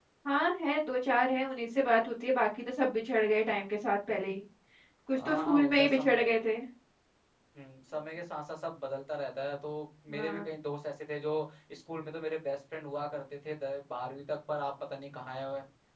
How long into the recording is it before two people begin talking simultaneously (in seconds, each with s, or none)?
5.1 s